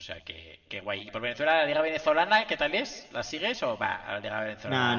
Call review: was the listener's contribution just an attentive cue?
No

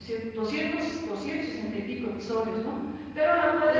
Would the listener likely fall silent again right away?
Yes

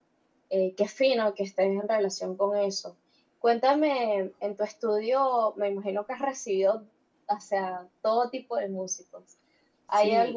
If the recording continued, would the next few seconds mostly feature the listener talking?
No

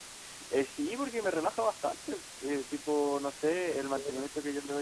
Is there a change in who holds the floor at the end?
No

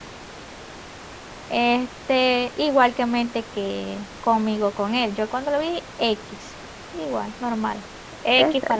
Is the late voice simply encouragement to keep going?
Yes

